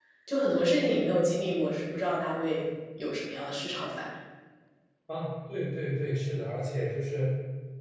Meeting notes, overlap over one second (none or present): none